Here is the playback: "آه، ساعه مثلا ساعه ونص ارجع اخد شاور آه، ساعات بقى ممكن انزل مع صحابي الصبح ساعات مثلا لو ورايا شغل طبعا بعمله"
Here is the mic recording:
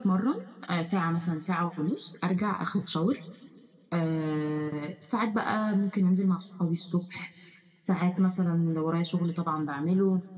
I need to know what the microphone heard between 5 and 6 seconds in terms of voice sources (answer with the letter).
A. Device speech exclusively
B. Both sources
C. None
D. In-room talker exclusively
A